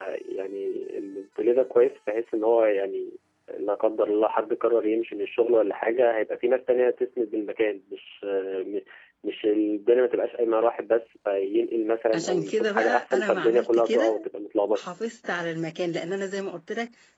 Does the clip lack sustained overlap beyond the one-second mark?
No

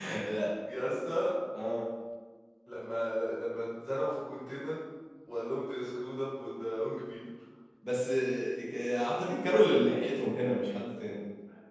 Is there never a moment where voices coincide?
Yes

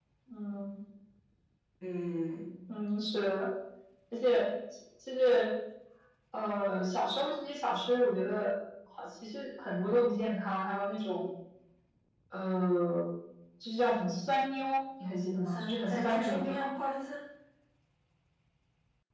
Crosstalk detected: Yes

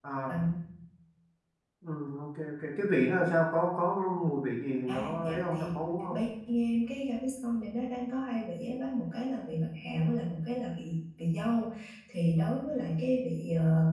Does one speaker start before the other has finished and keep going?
Yes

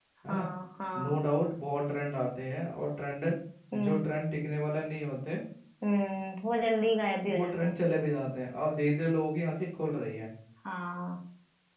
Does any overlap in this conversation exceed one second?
No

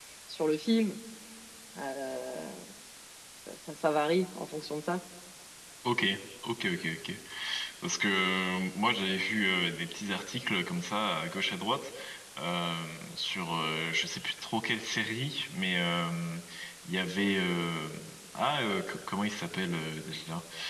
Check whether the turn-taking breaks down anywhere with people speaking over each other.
No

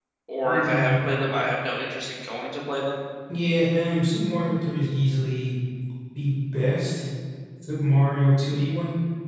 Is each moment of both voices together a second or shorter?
Yes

